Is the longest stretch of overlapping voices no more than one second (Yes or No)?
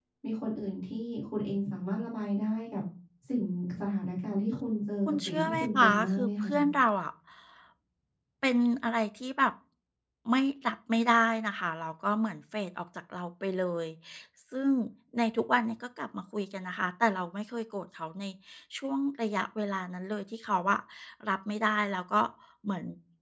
No